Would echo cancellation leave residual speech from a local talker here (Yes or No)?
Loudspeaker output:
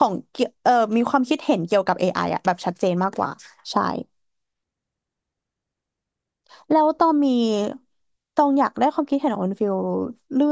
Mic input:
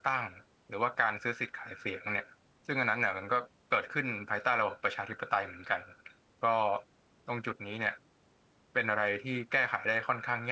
Yes